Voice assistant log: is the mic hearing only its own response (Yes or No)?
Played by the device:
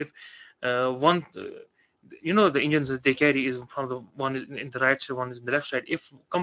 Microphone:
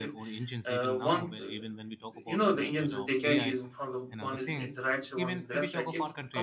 No